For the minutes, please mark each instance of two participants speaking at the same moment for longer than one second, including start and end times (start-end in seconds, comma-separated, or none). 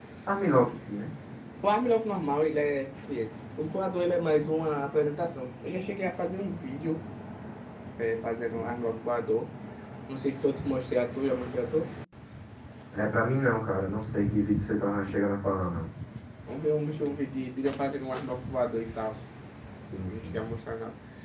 none